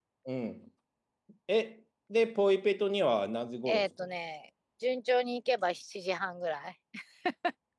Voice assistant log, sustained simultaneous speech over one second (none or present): none